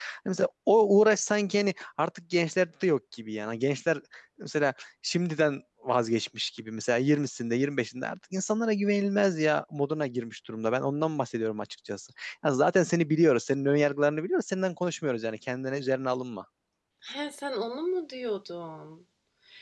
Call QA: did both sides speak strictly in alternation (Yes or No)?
Yes